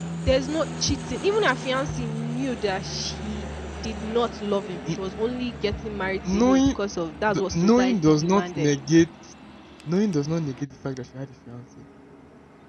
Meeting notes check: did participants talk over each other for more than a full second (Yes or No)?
Yes